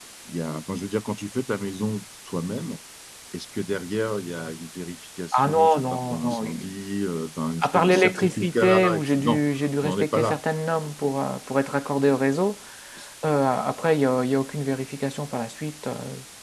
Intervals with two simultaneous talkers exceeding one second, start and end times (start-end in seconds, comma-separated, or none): 5.3-6.7, 7.6-9.4